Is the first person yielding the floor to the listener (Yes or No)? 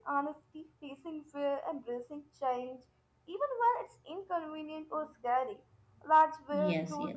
Yes